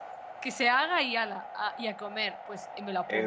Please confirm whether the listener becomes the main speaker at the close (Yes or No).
Yes